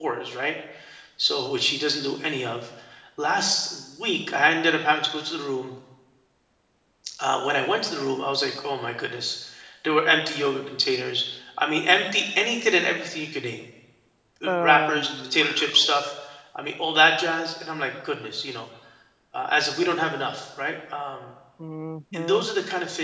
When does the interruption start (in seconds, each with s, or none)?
14.4 s